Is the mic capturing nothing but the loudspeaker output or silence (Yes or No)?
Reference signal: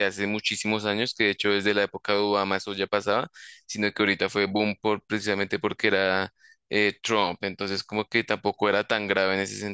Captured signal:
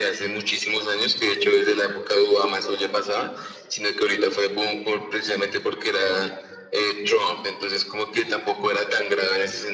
Yes